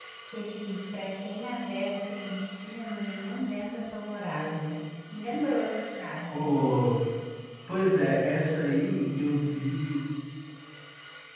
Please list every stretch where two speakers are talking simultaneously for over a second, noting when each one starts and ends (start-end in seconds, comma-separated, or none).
none